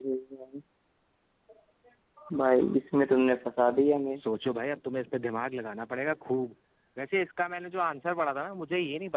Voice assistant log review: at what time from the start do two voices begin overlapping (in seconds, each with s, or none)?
none